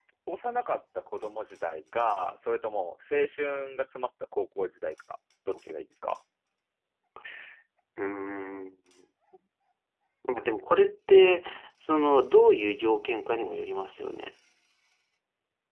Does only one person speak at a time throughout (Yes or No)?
Yes